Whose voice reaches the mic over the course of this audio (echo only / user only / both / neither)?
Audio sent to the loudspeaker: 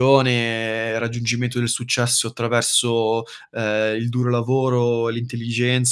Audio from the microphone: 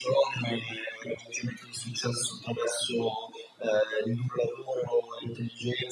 echo only